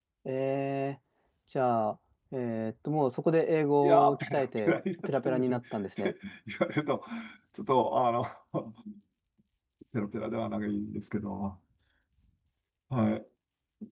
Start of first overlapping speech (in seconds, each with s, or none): 3.8 s